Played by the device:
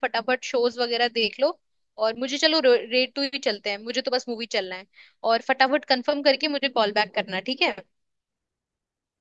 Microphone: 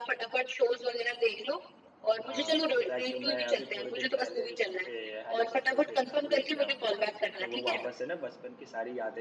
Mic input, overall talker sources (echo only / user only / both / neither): both